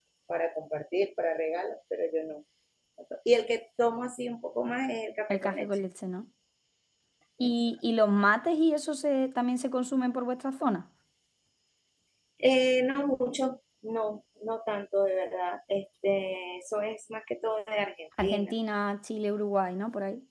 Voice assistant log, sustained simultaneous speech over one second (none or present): none